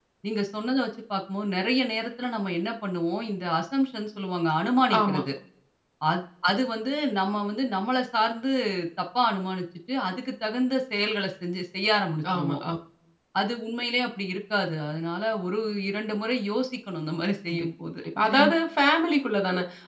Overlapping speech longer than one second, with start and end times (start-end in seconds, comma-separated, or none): none